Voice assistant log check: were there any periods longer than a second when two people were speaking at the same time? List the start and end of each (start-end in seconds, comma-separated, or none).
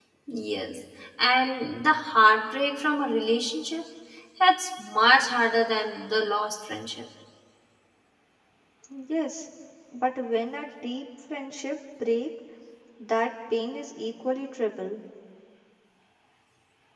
none